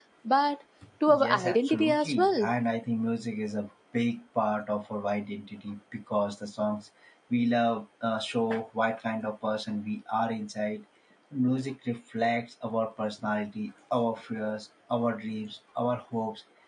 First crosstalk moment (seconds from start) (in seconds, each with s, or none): 1.1 s